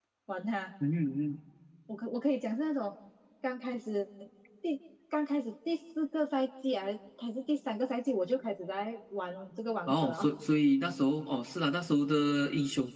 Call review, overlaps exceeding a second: none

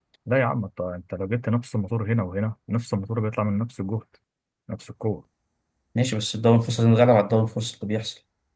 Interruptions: none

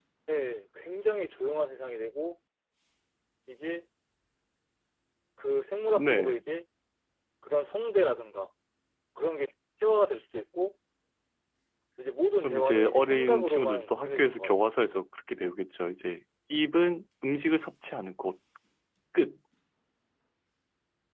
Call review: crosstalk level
present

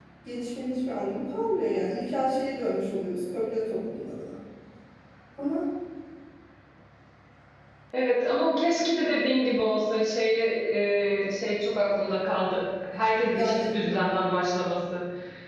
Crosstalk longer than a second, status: none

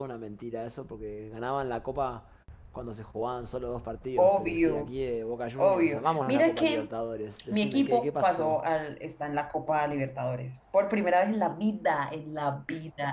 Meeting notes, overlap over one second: present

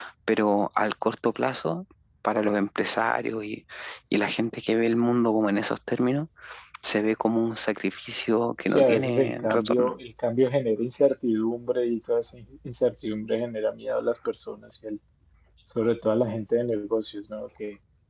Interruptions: present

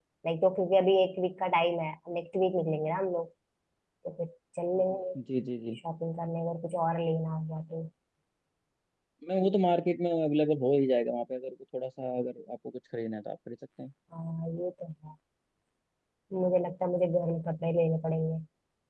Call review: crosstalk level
none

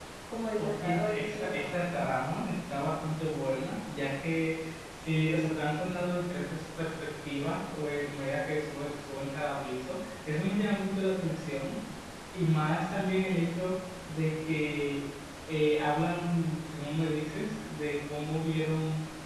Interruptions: present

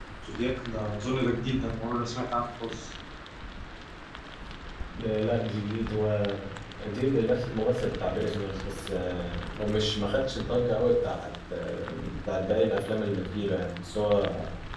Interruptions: none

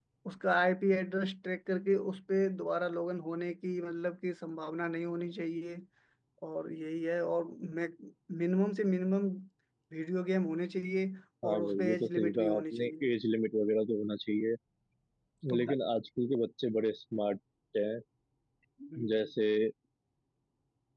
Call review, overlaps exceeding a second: present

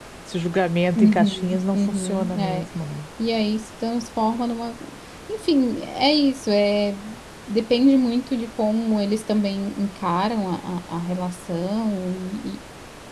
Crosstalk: present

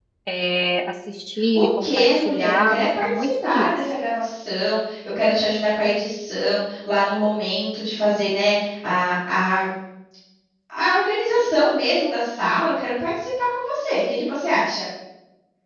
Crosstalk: present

